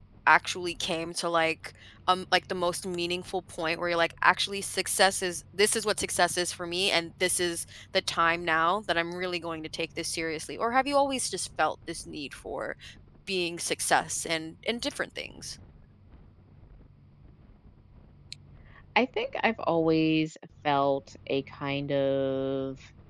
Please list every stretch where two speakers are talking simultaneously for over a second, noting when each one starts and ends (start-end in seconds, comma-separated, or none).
none